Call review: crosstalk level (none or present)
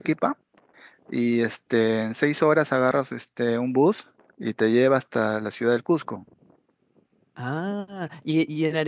none